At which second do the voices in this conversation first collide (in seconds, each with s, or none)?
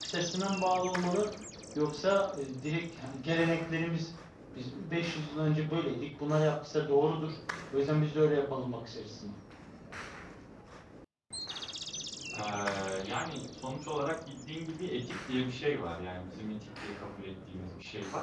none